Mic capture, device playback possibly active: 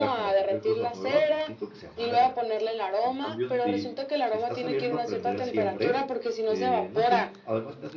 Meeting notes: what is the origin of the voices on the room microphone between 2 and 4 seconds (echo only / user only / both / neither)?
both